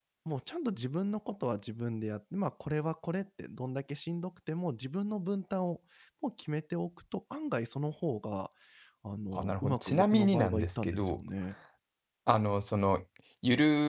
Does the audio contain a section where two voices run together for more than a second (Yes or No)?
Yes